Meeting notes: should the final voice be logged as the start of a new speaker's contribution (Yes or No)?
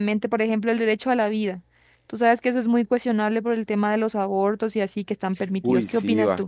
Yes